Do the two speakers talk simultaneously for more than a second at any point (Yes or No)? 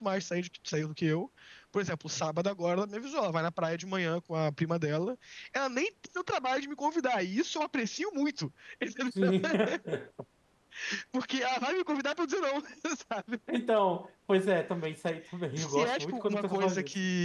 Yes